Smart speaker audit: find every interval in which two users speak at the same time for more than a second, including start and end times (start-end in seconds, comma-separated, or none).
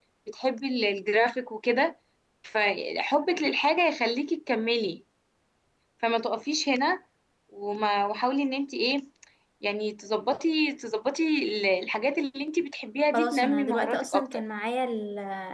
13.1-14.4